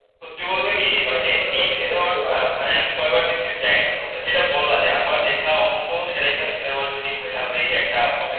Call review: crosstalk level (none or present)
present